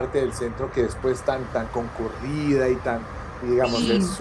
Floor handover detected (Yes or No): No